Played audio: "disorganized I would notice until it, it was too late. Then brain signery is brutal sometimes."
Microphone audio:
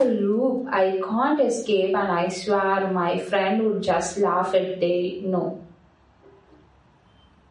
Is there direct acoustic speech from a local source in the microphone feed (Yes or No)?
Yes